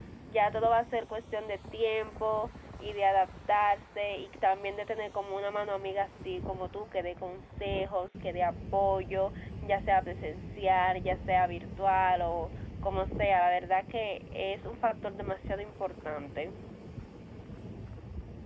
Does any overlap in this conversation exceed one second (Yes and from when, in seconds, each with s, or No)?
No